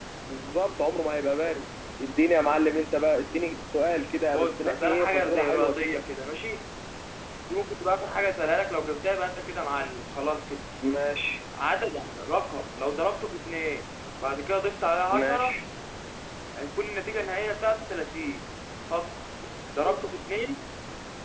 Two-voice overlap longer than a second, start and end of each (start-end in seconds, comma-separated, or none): 4.3-6.0